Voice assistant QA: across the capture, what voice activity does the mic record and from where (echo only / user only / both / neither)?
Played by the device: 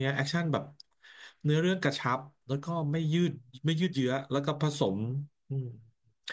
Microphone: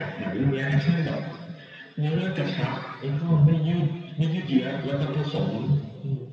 echo only